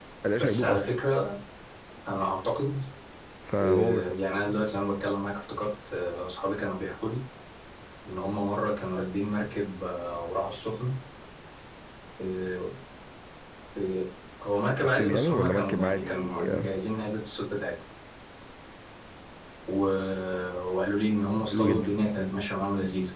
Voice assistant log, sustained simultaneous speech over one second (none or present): present